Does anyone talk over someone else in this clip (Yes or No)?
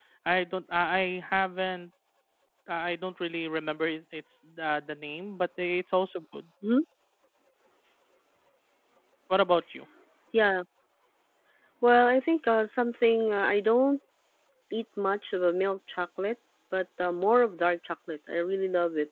No